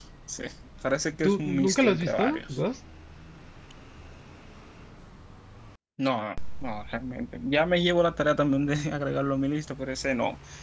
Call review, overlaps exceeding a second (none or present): present